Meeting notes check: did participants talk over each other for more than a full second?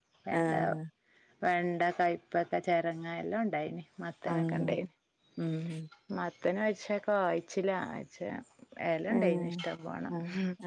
No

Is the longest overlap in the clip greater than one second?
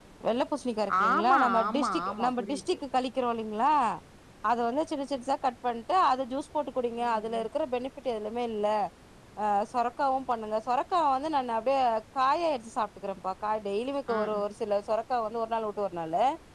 Yes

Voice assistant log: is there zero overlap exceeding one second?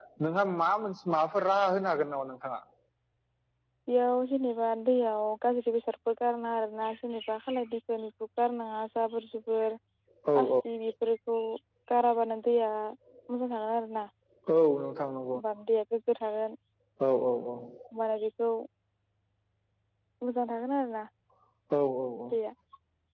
Yes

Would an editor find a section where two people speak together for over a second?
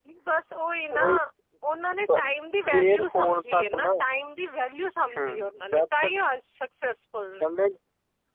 Yes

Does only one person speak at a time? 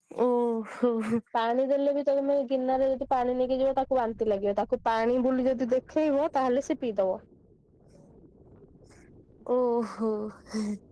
Yes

